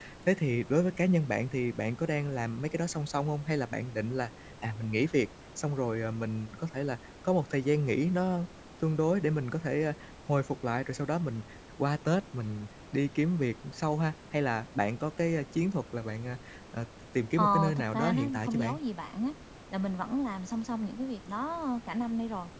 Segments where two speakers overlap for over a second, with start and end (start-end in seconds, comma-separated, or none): 17.4-18.8